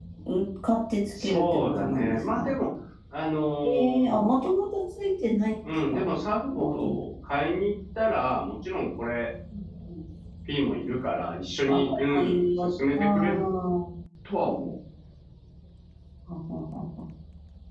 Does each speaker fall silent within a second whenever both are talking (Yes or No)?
No